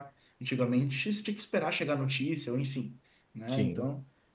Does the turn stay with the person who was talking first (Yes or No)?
Yes